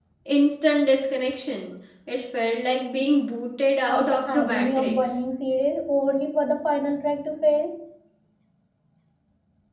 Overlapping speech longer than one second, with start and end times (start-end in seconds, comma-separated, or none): 3.9-5.2